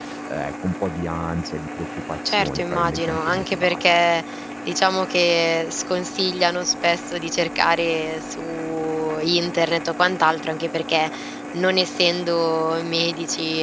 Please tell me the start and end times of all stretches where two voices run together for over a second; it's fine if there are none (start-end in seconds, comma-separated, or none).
2.2-3.8